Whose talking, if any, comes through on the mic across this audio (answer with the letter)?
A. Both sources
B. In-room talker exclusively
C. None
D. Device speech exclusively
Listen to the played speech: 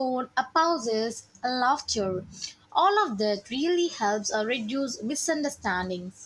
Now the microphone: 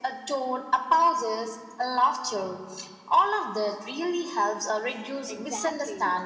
A